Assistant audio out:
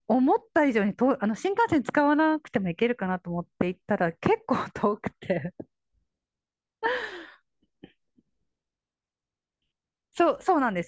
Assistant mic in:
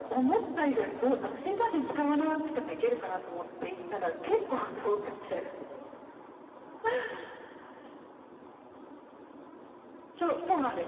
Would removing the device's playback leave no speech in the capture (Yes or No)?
Yes